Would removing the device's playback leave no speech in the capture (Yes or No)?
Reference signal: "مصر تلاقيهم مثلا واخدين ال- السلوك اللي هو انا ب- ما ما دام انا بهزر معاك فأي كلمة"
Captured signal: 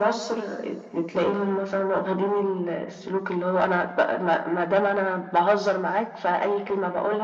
Yes